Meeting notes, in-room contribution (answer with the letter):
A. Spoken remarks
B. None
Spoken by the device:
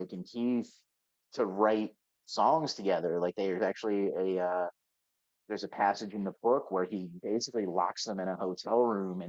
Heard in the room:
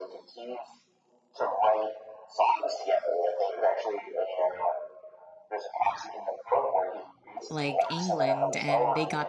A